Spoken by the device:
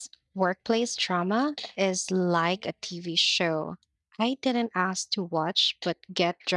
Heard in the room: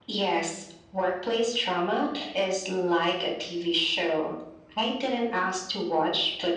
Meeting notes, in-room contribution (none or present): none